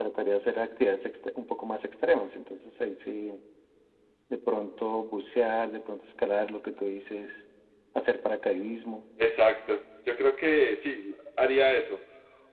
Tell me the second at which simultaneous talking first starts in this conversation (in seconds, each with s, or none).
none